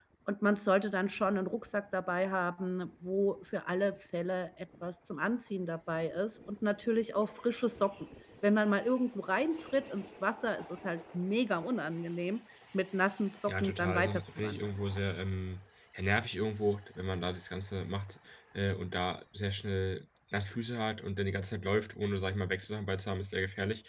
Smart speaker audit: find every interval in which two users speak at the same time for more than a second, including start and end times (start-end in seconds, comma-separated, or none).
13.5-14.8